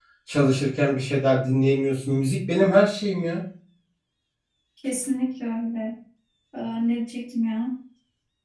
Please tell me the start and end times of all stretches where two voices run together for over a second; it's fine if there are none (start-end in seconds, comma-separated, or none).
none